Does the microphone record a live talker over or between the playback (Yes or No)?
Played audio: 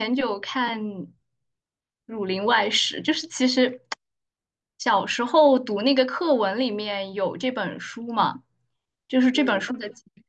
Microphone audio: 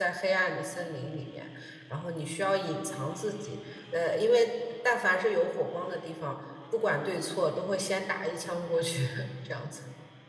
Yes